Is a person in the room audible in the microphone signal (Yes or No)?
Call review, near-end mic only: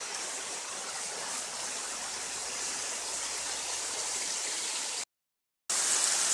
No